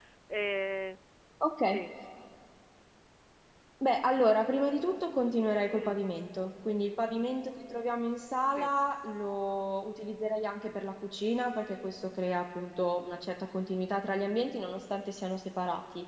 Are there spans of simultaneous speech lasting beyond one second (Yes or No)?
No